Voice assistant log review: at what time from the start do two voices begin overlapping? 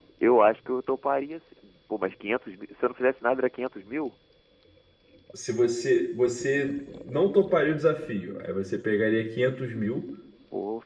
none

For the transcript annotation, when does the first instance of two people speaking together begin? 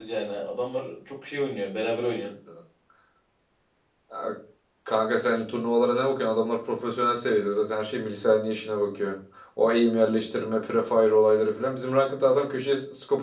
none

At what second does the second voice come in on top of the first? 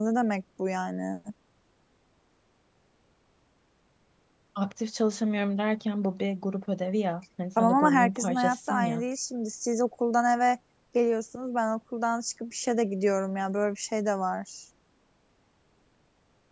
8 s

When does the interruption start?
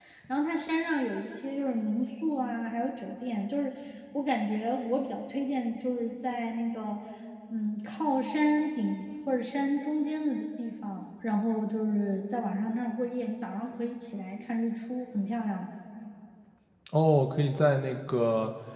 none

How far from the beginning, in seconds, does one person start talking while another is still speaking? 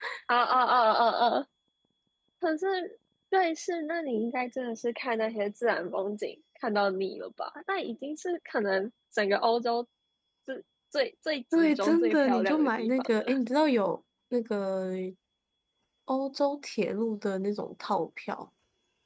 12 s

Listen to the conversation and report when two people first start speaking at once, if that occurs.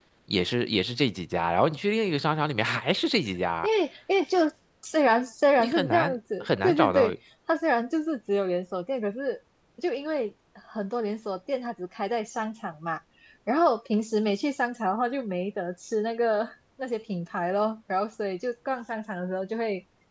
6 s

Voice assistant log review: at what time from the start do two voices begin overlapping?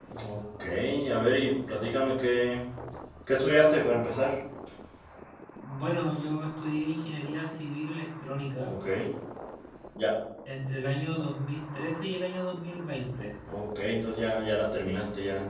none

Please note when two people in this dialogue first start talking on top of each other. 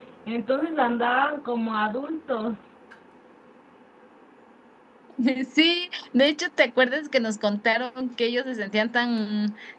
none

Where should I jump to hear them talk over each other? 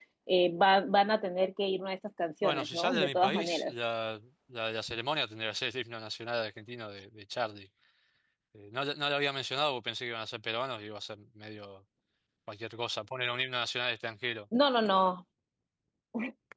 2 s

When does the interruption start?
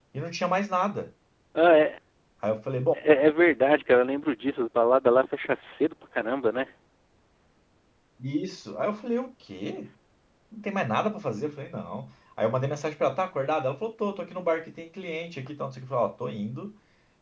none

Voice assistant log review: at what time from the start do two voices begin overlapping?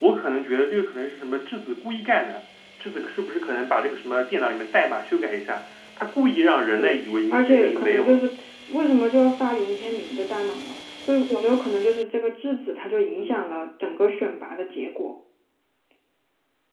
7 s

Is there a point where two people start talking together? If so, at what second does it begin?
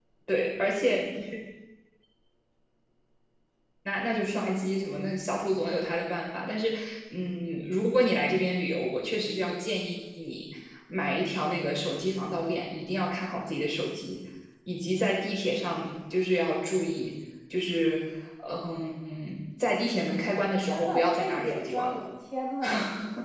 21 s

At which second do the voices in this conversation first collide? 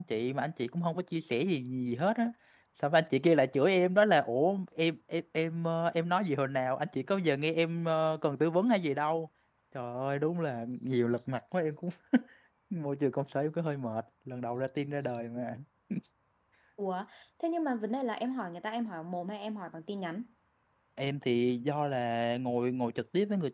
none

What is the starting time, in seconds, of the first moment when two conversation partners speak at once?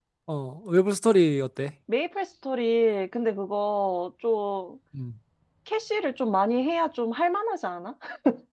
none

